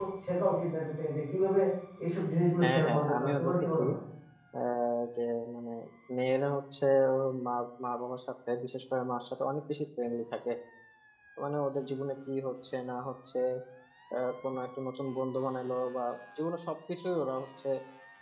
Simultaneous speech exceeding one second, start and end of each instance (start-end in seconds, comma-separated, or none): 2.6-3.8